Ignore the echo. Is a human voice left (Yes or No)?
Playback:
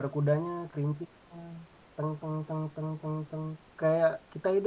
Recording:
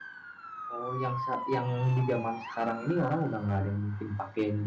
Yes